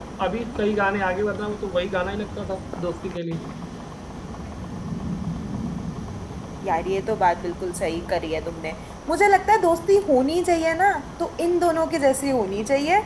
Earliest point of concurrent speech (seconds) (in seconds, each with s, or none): none